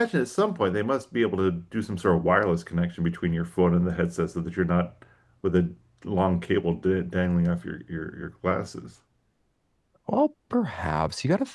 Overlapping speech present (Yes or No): No